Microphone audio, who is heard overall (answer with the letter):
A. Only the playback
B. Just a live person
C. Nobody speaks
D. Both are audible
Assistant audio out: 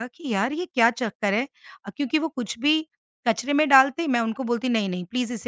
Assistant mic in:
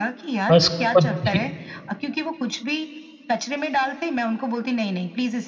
D